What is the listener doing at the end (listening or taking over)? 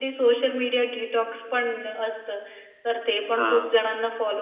listening